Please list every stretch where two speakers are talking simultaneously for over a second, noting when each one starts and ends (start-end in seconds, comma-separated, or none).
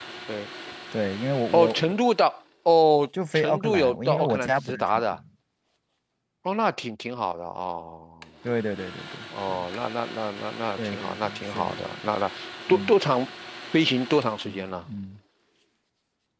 3.3-5.2, 10.8-12.1